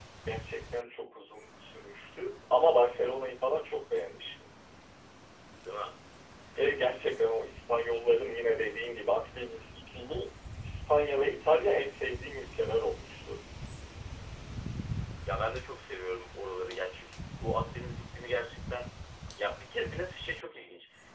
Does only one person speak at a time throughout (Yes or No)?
Yes